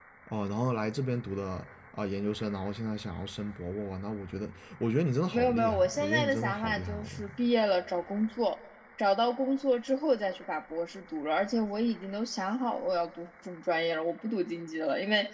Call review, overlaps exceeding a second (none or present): present